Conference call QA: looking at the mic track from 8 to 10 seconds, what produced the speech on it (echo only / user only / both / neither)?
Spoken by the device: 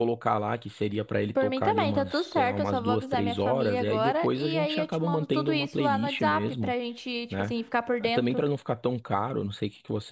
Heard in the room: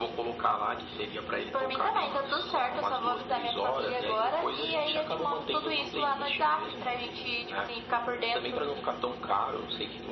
echo only